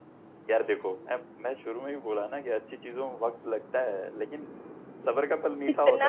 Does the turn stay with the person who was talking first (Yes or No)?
No